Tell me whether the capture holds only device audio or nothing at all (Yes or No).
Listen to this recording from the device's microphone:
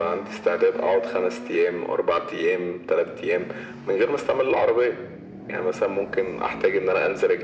Yes